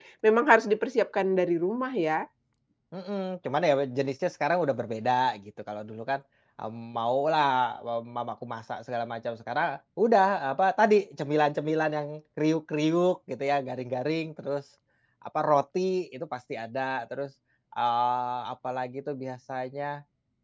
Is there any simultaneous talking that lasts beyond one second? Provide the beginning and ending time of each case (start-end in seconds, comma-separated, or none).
none